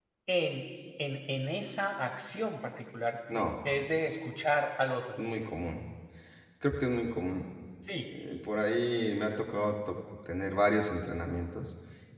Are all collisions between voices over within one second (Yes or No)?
Yes